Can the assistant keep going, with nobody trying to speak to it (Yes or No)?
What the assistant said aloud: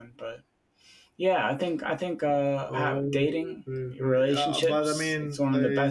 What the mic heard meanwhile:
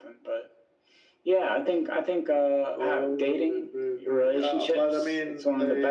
Yes